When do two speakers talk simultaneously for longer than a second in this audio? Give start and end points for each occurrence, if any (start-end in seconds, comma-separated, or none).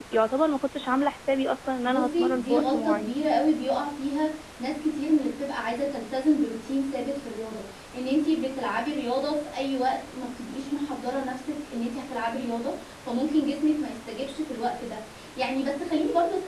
1.8-3.1